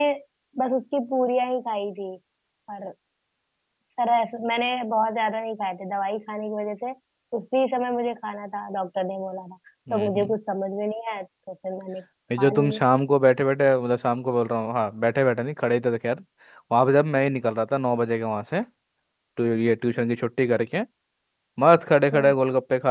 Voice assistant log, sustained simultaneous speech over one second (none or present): none